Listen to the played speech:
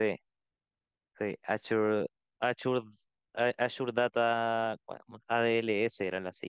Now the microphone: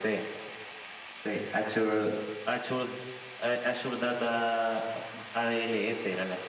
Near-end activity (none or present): none